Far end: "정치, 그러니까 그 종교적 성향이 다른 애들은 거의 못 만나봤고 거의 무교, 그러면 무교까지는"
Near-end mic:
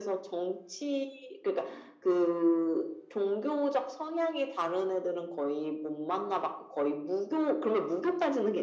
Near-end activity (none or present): none